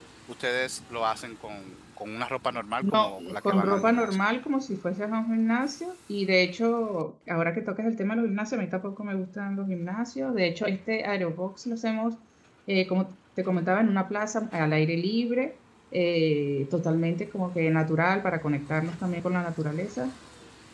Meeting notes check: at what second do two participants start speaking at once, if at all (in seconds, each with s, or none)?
2.8 s